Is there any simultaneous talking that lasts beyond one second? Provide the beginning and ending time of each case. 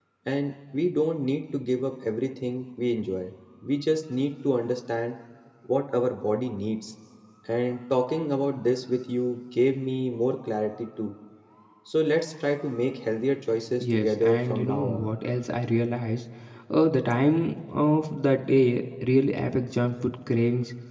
13.8-15.1

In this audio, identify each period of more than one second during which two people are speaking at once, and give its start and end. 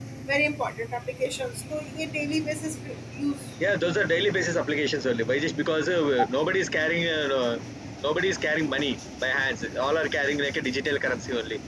none

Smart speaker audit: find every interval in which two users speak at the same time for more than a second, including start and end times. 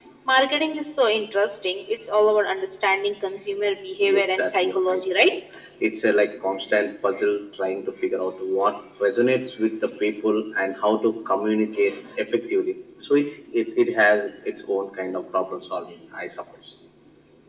4.0-5.3

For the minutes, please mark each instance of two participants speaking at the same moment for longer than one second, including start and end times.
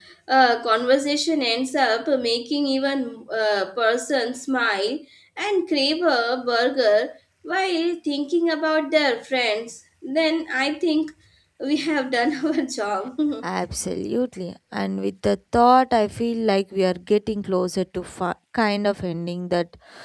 none

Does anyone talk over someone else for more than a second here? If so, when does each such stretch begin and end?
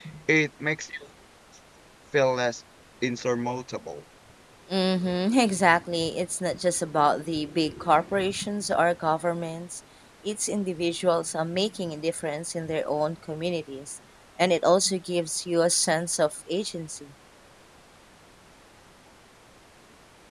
none

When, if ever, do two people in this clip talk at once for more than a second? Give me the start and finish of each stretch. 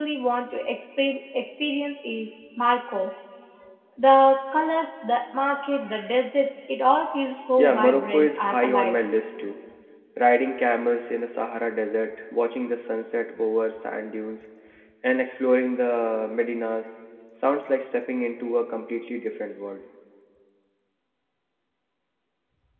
7.6-9.0

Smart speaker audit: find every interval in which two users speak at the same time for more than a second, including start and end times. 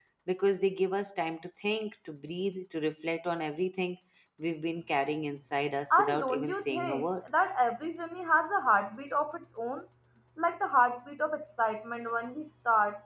5.9-7.1

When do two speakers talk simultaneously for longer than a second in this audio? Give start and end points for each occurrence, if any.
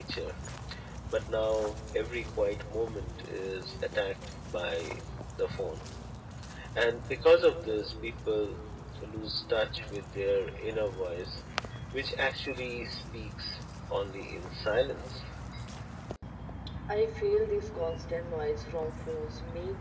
none

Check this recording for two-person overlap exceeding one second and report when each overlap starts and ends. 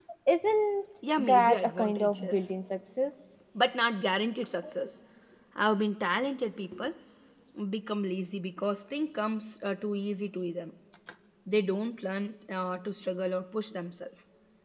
1.2-2.5

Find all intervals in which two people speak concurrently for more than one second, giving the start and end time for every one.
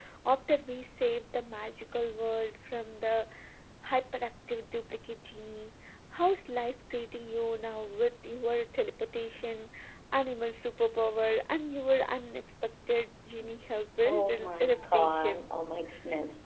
14.1-15.5

